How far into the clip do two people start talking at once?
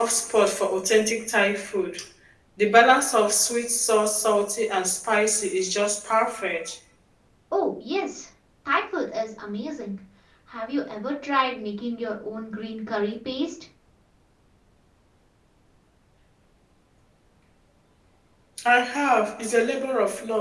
none

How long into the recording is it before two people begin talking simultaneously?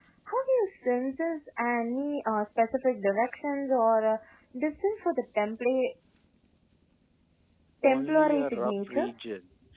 7.9 s

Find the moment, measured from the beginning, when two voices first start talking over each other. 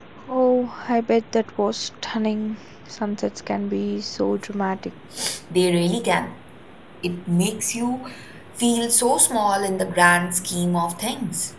none

